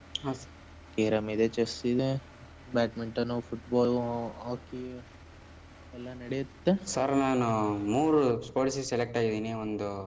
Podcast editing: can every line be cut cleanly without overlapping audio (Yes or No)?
Yes